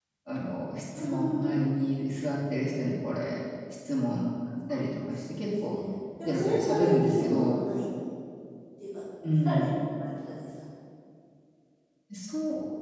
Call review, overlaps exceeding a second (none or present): present